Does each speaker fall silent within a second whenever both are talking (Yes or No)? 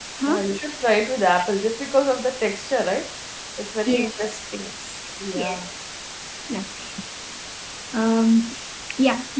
Yes